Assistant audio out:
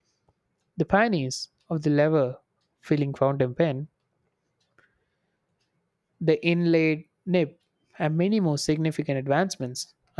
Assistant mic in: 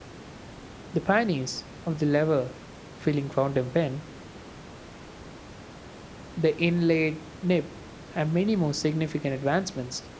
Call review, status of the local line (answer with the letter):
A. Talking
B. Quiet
B